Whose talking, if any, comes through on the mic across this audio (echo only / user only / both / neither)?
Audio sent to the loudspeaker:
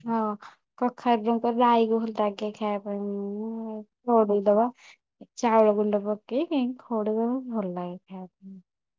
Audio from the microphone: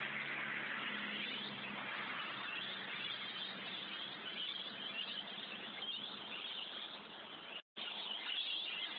neither